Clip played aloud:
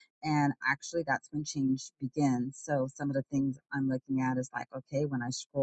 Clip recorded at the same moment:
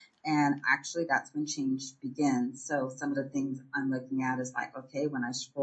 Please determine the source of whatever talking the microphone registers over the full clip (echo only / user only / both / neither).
echo only